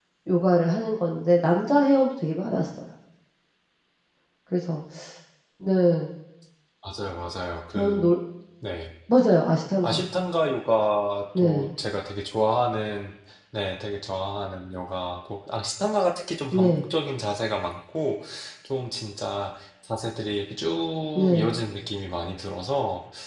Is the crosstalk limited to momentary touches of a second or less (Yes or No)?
Yes